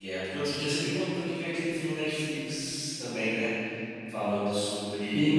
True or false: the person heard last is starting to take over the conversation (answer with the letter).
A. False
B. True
B